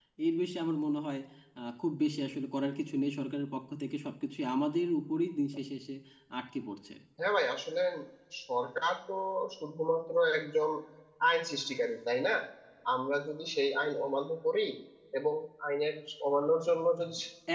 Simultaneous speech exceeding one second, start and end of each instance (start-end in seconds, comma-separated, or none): none